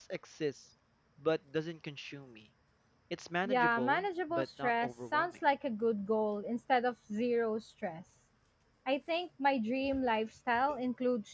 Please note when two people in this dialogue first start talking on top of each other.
3 s

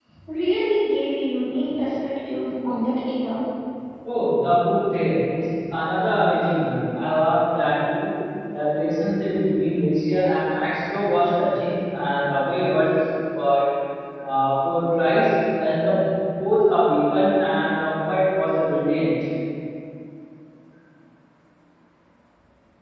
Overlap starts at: none

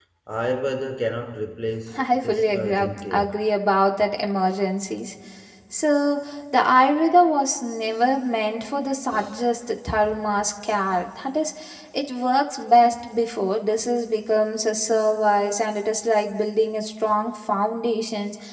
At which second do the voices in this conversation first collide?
2 s

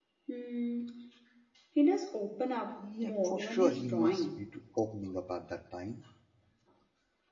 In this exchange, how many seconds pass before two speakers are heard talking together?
3 s

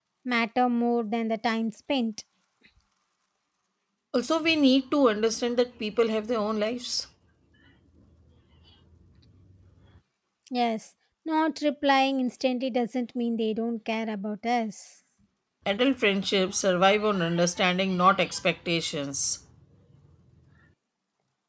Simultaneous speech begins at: none

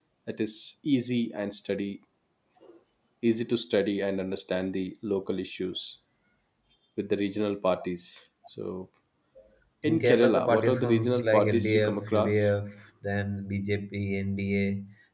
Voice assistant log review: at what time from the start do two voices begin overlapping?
10 s

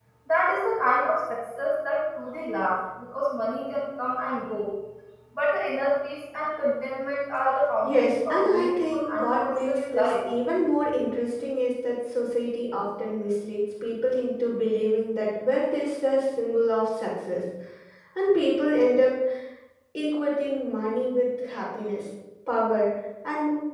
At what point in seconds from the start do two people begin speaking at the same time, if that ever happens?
8 s

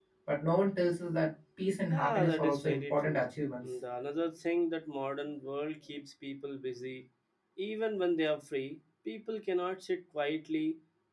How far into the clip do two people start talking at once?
2 s

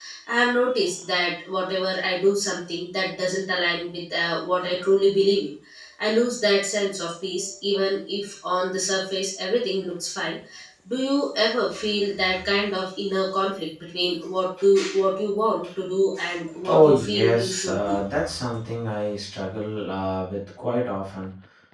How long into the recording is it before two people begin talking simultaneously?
17 s

